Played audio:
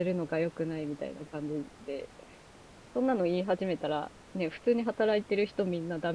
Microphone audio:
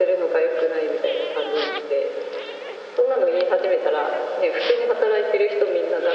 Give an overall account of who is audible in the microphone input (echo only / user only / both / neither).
echo only